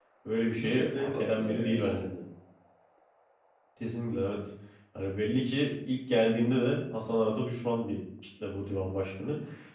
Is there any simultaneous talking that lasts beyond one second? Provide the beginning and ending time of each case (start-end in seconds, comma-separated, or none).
0.6-2.0